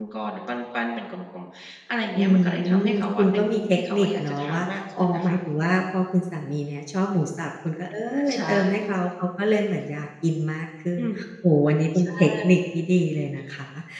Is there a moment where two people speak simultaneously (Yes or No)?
Yes